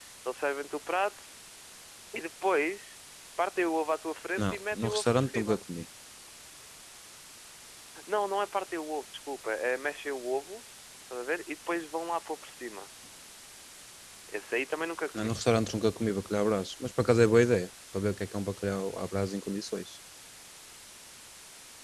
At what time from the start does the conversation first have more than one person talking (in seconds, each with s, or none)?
4.4 s